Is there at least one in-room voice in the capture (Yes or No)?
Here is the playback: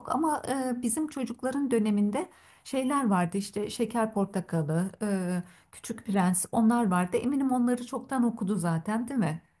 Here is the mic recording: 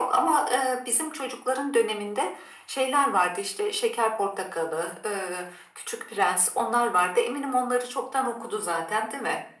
No